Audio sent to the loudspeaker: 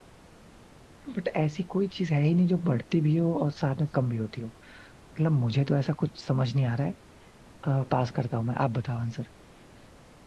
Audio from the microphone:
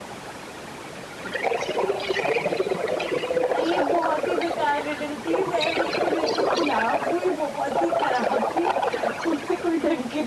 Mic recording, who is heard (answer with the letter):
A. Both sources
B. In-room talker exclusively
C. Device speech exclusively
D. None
A